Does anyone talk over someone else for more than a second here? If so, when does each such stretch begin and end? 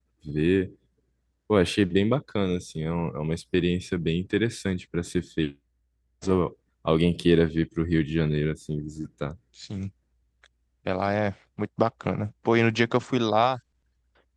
none

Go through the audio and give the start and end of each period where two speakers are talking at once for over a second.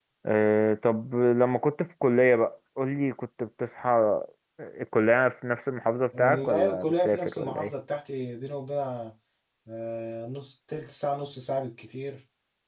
6.2-7.7

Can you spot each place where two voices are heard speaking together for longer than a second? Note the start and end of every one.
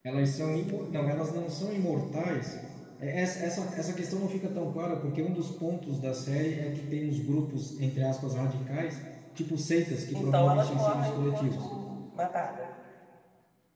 10.1-11.7

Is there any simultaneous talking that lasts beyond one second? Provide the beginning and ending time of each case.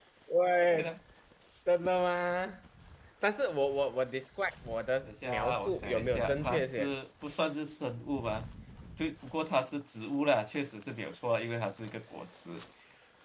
5.0-6.9

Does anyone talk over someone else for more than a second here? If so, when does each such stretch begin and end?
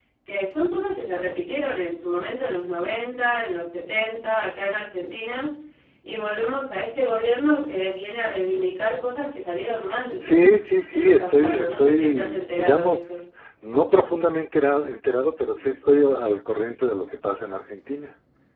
10.9-13.2

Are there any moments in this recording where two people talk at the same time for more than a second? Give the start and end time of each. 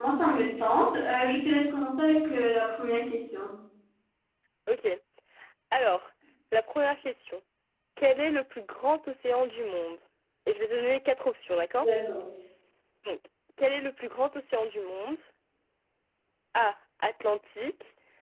none

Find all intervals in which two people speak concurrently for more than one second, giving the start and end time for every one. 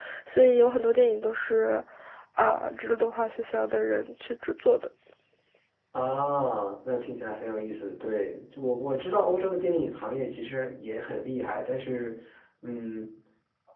none

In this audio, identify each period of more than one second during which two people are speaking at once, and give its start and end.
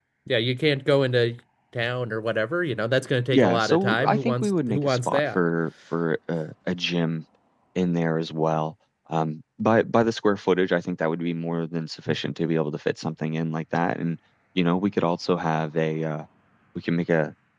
3.3-5.4

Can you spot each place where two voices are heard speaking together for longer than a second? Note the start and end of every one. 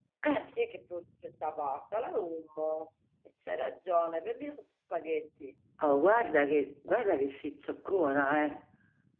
none

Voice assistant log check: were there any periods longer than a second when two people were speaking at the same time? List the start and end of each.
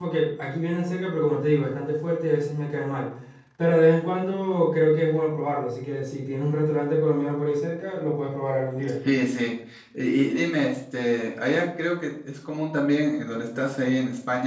none

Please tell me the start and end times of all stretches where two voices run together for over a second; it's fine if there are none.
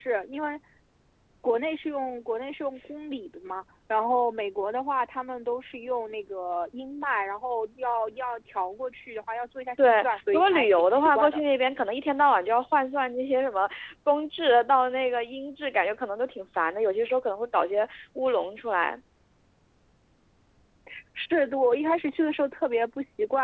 9.9-11.4

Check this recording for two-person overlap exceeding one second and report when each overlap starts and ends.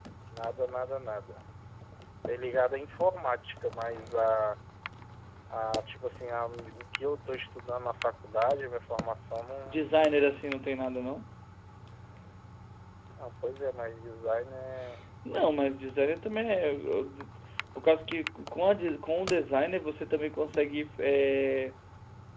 none

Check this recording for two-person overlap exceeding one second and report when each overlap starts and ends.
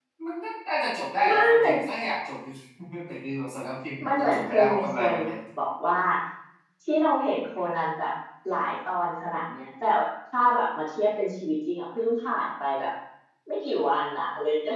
4.0-5.3

